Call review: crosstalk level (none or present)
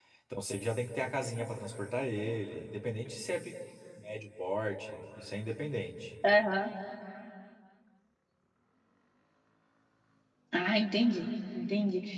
none